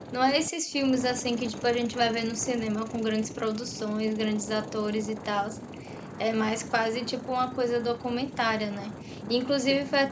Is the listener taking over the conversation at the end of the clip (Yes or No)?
No